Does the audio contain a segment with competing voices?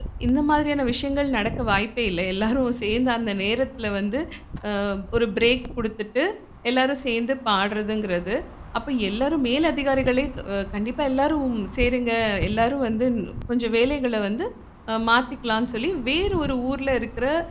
No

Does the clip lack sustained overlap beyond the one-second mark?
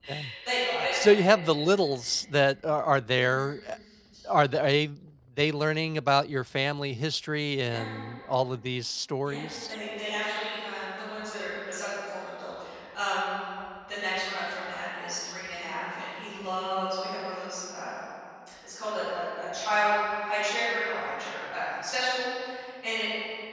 Yes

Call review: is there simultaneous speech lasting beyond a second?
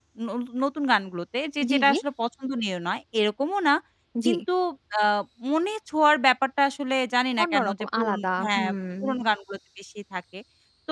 Yes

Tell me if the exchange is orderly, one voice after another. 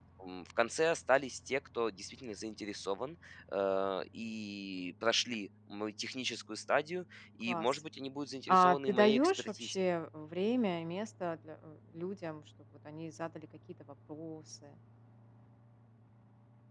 No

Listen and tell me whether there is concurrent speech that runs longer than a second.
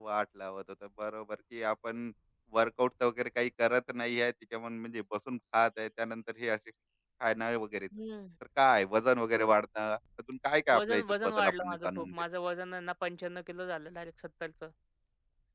Yes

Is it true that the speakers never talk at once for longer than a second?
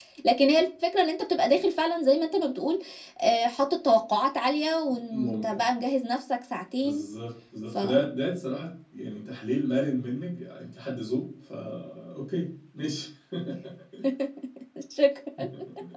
Yes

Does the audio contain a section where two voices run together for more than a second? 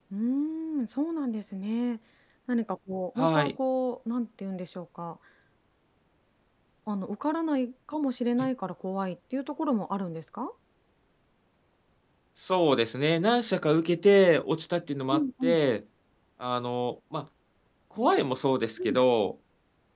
No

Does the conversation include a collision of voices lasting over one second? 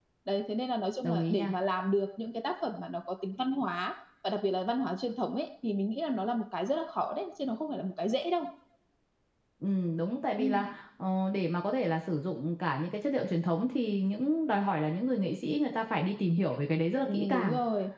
No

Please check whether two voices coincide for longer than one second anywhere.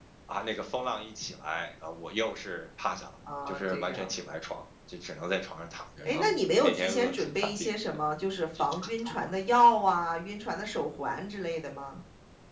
Yes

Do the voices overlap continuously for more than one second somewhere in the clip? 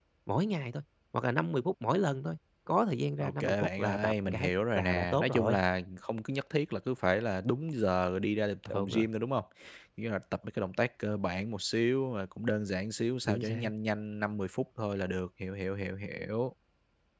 Yes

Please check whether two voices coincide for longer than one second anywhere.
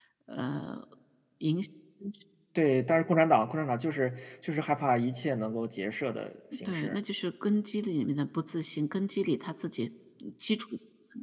No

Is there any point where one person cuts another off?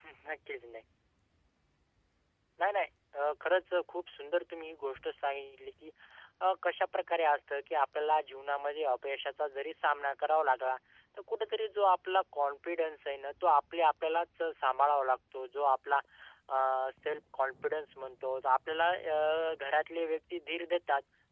No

